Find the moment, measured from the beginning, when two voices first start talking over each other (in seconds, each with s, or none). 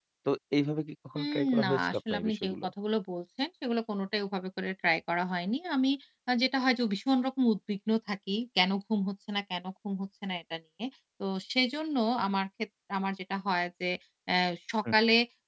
1.2 s